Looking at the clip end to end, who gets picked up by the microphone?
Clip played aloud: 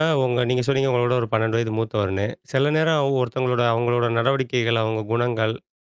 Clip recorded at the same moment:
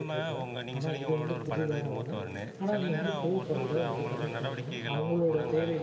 both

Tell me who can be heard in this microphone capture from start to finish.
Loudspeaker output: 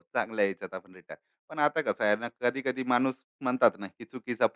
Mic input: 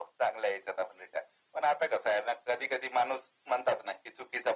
echo only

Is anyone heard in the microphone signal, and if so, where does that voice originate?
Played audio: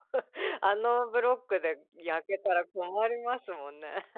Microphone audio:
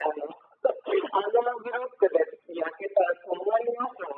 echo only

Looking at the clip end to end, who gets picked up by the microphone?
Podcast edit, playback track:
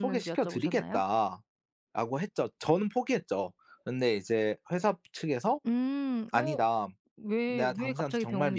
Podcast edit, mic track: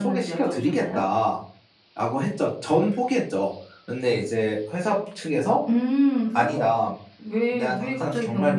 echo only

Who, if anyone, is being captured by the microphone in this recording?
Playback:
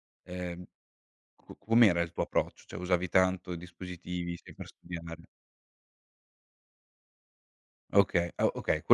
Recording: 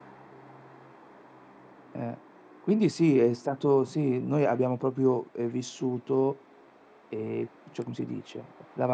user only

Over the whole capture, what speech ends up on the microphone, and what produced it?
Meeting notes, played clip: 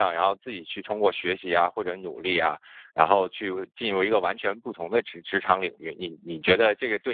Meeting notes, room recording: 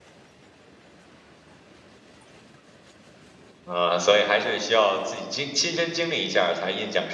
user only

